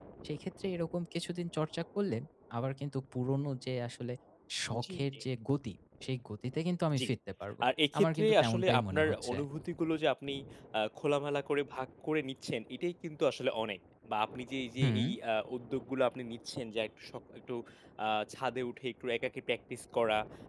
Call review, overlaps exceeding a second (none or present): present